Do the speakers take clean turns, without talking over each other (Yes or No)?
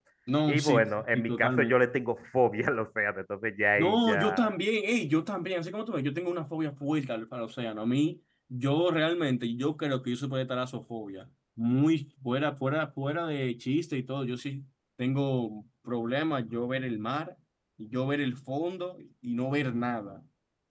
No